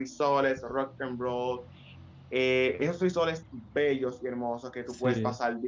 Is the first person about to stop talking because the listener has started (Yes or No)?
No